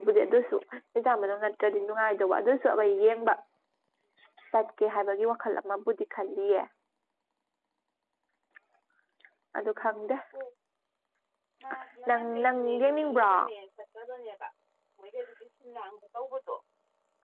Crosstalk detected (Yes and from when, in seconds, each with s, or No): Yes, from 12.1 s